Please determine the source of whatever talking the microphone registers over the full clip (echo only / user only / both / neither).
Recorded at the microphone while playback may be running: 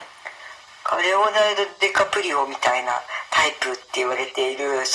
echo only